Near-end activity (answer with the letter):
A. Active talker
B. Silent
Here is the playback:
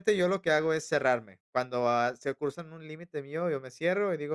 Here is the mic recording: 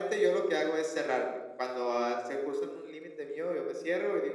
B